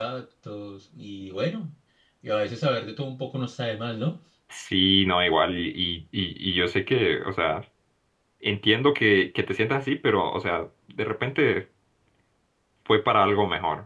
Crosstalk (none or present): none